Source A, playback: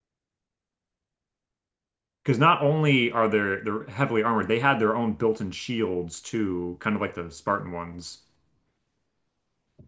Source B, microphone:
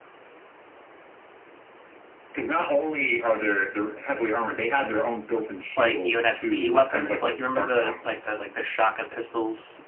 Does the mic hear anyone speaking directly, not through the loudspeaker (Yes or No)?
Yes